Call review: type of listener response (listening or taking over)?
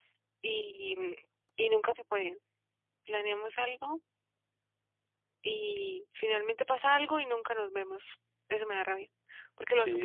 taking over